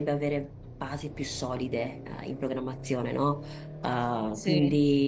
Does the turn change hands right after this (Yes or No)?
No